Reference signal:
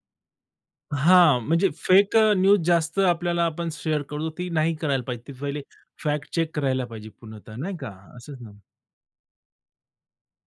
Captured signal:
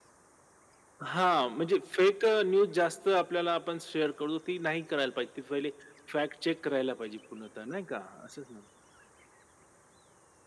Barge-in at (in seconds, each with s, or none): none